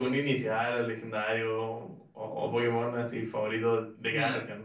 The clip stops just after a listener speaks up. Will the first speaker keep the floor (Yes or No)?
No